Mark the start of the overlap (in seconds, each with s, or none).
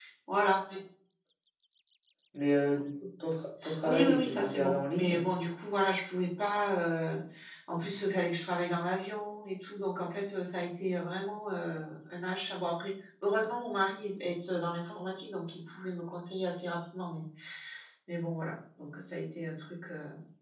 3.6 s